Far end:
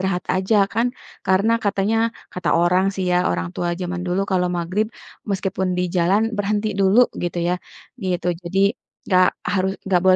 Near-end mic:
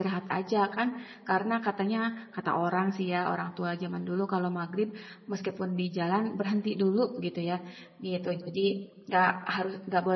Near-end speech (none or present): none